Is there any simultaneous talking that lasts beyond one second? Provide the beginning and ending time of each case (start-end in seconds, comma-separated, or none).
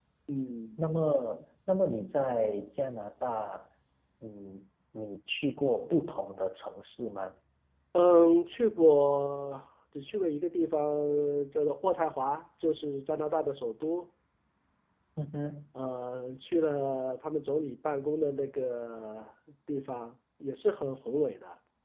none